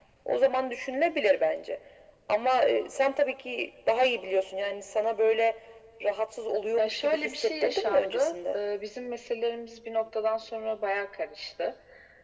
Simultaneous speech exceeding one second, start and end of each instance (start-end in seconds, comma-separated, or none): 6.8-8.6